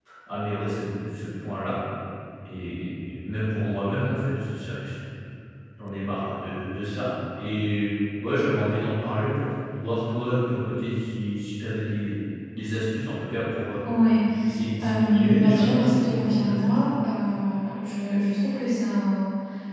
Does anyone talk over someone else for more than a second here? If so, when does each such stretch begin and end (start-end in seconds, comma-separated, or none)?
14.8-16.7